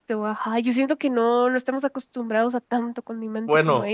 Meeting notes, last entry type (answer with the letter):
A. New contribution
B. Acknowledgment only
A